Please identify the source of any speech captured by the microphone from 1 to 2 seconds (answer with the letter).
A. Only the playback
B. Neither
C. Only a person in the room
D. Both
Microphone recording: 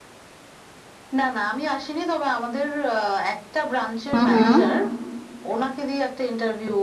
A